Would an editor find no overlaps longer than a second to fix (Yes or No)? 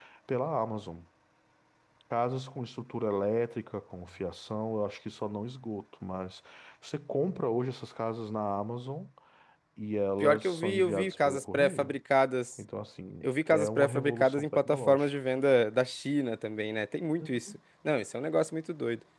No